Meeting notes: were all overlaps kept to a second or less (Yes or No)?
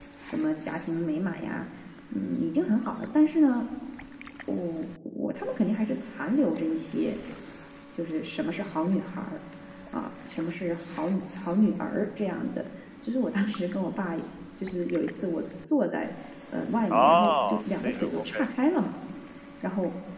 No